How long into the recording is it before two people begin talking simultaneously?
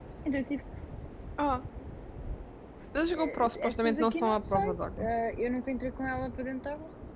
3.1 s

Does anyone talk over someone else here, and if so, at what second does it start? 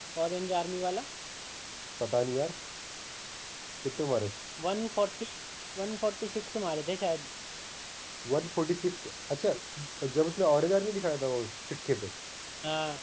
none

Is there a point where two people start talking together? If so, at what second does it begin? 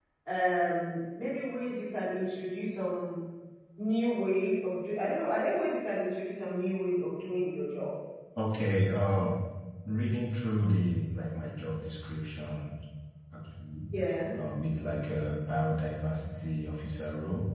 none

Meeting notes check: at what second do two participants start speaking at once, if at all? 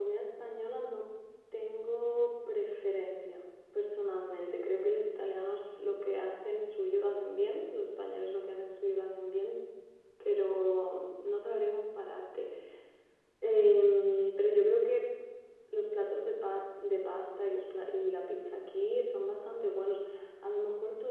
none

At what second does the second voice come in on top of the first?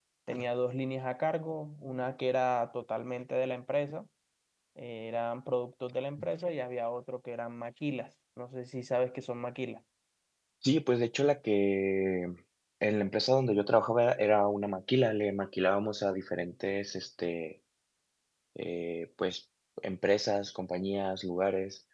none

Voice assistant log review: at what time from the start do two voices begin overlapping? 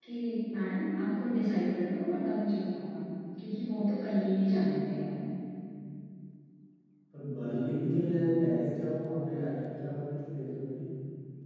none

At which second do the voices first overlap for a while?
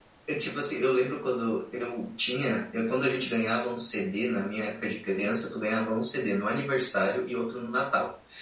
none

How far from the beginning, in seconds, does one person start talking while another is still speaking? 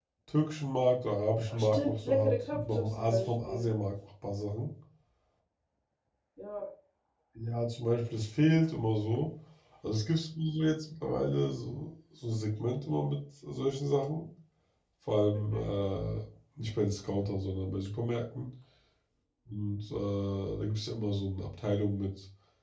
1.5 s

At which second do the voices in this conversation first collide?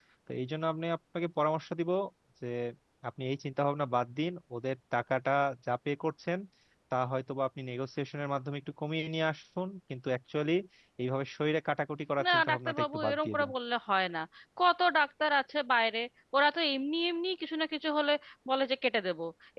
12.2 s

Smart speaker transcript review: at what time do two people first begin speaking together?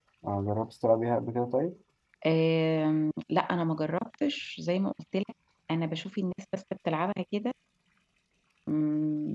none

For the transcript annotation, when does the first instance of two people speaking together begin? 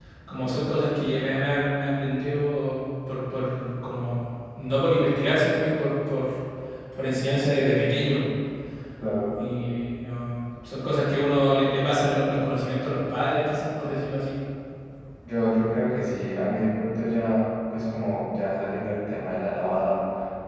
none

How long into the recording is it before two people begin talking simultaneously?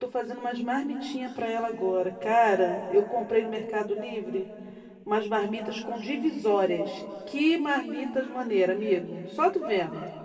none

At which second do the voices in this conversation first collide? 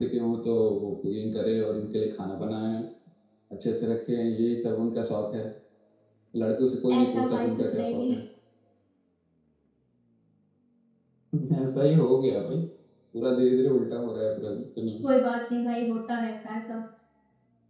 7.0 s

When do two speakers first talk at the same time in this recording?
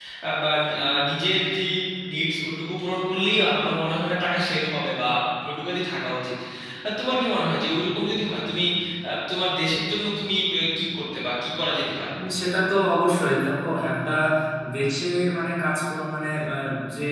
none

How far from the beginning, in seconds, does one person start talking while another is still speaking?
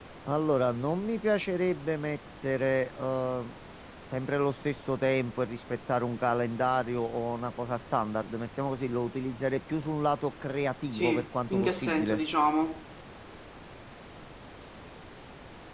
10.9 s

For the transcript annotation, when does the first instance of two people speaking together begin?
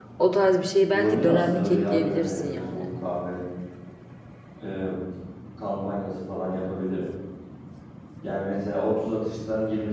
0.9 s

